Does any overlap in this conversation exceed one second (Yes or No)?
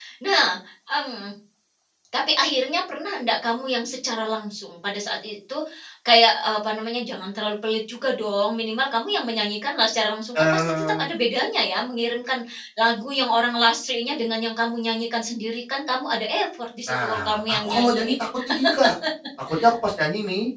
Yes